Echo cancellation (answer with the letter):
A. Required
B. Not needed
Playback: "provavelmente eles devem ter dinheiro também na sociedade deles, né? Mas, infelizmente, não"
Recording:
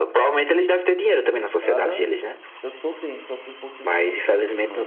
A